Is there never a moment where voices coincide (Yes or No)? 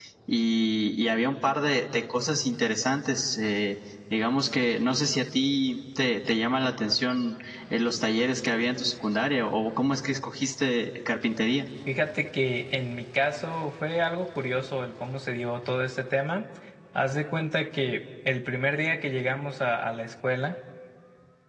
Yes